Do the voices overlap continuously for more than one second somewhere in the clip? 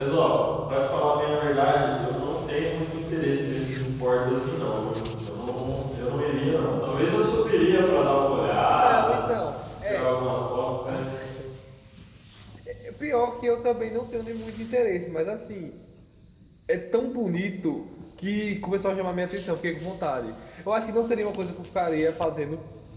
No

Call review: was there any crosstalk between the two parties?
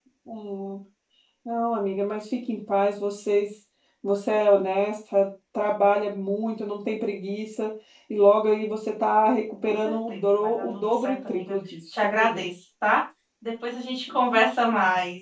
Yes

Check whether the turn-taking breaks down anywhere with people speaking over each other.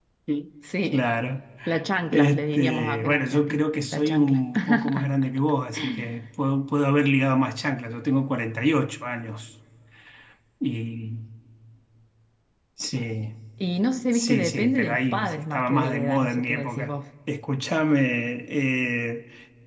Yes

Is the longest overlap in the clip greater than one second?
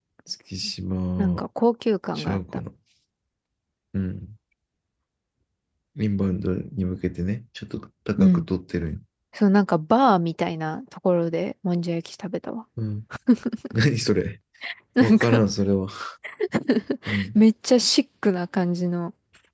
No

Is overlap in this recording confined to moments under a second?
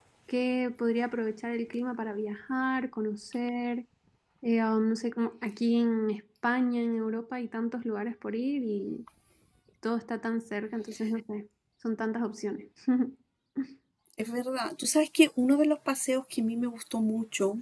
Yes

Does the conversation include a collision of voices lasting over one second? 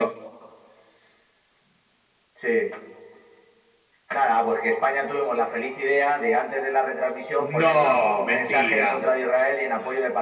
Yes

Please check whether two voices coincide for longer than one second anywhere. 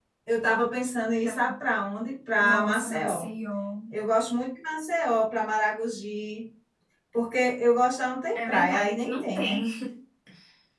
Yes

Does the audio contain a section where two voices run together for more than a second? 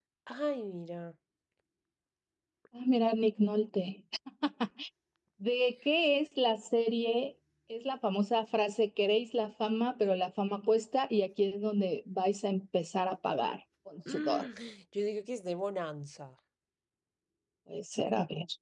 No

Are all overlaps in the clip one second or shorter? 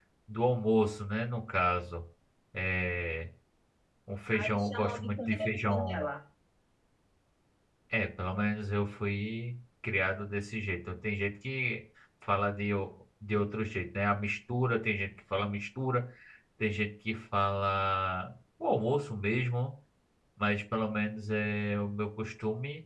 No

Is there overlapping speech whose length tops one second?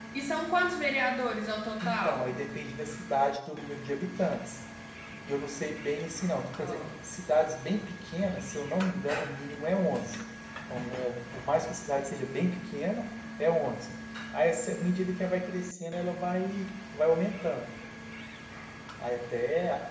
No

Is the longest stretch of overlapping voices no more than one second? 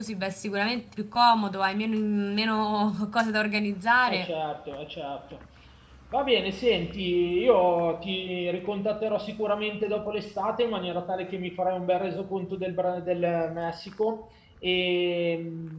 Yes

